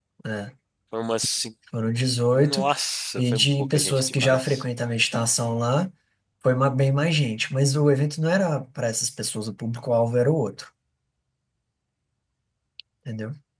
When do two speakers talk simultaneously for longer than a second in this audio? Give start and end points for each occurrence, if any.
3.2-4.6

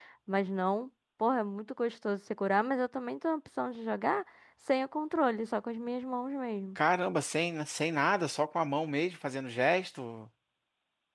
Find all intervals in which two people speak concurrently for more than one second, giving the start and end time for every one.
none

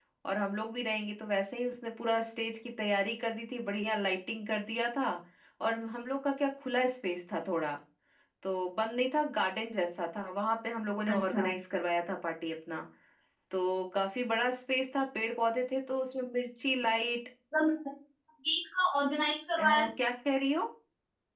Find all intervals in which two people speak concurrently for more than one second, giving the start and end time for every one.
none

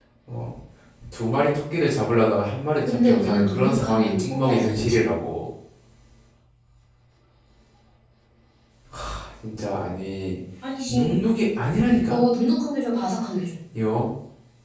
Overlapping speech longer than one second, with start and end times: 2.9-4.9

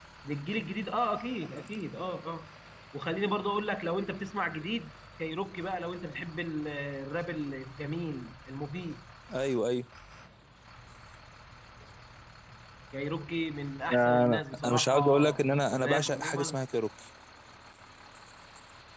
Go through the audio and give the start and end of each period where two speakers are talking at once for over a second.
13.9-16.6

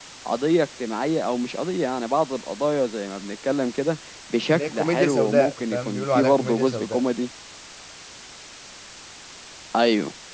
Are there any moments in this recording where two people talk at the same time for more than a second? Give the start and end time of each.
4.5-7.0

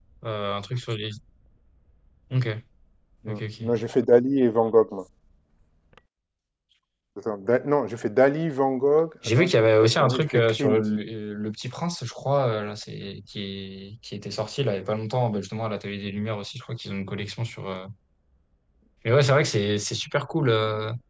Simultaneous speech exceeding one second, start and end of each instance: 9.4-10.8

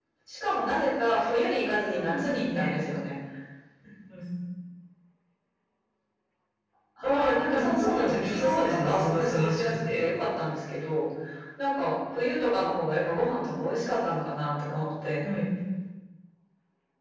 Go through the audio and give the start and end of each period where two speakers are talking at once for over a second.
1.4-2.7, 7.0-10.0

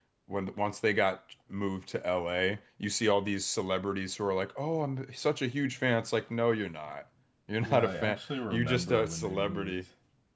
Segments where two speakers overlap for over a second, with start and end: 7.6-9.8

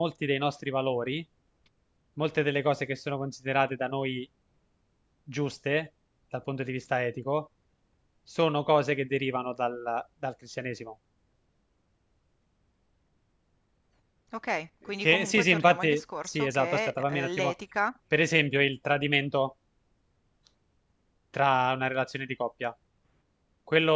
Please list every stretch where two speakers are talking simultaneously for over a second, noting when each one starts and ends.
15.0-17.5

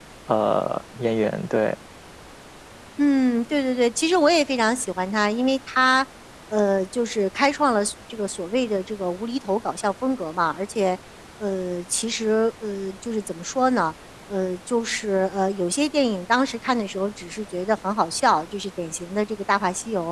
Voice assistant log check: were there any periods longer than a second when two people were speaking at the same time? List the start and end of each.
none

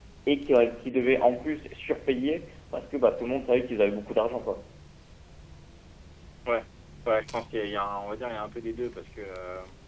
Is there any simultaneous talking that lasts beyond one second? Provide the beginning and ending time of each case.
none

